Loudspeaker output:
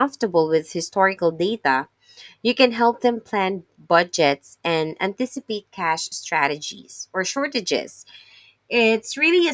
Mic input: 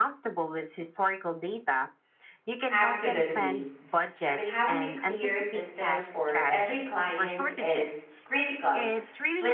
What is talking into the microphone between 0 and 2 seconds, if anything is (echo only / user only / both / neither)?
echo only